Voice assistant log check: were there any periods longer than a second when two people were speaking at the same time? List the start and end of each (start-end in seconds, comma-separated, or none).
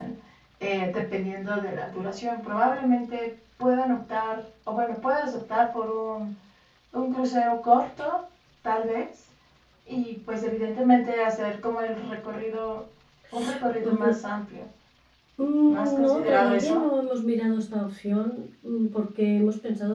15.7-16.9